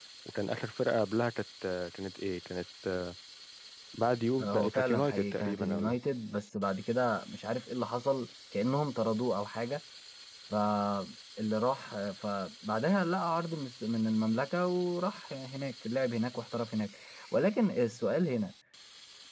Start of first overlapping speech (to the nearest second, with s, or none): 4 s